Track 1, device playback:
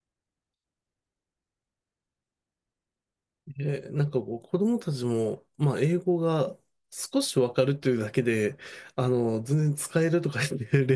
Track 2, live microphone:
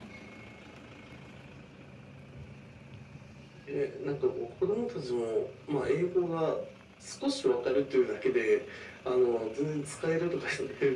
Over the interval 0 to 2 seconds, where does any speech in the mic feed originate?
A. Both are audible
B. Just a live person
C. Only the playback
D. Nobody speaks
D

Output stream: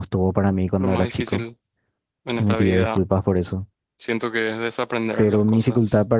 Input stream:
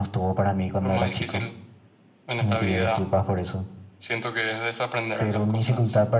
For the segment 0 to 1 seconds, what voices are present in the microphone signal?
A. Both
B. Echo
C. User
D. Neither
B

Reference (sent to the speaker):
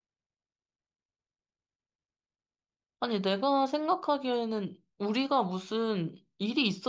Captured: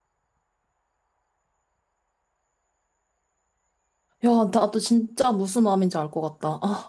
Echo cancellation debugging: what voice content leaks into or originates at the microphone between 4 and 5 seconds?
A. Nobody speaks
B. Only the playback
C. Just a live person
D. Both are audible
C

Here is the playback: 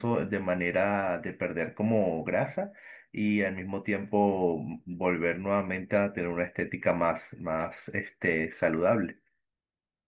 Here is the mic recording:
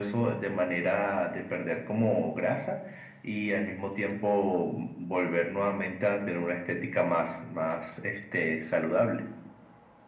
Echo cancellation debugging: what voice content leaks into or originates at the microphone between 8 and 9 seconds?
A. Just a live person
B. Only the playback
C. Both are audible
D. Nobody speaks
B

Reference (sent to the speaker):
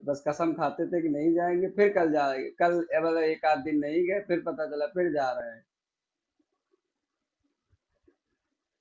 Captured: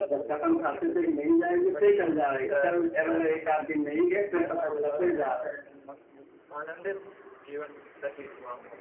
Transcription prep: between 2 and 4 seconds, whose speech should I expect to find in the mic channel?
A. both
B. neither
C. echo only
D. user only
A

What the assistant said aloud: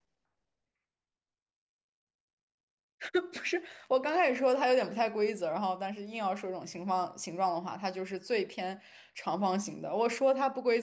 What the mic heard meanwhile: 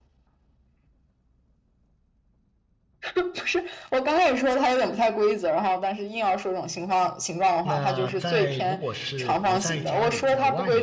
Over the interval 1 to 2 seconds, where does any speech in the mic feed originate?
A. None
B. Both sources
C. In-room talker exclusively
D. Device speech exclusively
A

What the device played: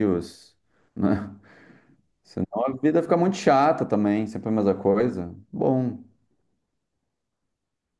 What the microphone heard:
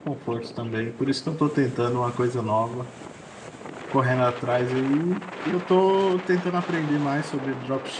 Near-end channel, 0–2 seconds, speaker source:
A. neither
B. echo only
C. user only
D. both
C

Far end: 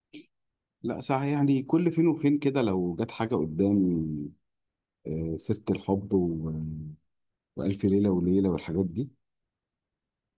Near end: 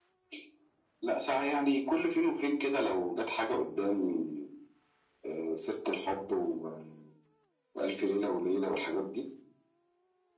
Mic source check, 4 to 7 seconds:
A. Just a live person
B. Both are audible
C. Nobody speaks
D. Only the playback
D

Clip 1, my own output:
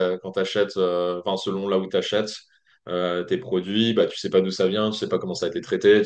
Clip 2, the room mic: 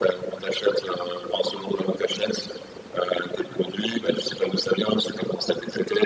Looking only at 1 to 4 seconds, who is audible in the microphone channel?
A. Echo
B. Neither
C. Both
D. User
A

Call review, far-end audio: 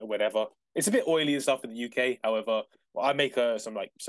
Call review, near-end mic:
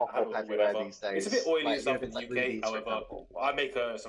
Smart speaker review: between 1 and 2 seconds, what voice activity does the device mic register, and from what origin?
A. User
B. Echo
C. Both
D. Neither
C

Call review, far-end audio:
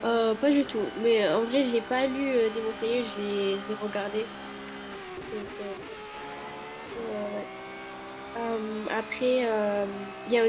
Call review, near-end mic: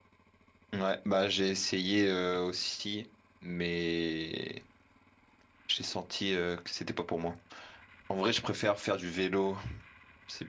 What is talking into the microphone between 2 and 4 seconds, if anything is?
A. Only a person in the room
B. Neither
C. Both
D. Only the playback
A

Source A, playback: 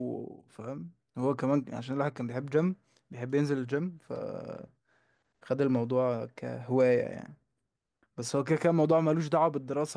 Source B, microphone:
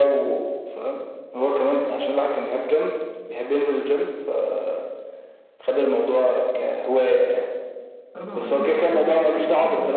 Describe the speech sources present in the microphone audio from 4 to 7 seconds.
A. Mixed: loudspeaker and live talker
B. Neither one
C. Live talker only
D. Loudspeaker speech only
D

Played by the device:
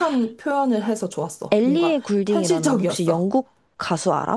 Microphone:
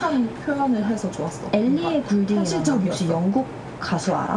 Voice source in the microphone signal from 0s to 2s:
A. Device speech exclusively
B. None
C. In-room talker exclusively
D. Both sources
A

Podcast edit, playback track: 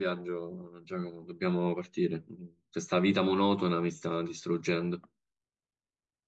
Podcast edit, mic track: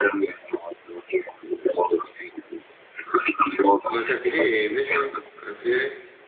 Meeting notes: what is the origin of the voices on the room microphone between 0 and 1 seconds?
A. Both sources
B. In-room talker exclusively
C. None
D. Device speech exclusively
D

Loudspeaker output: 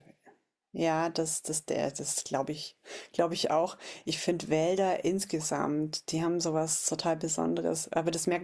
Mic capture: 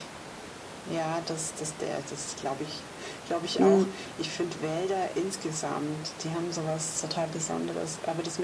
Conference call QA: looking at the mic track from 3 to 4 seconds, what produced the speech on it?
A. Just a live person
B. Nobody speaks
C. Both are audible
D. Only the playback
C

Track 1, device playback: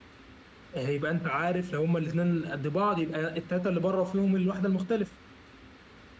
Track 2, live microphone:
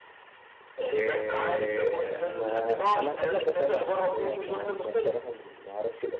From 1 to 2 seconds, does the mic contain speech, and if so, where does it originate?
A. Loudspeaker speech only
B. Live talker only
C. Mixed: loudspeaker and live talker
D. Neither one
C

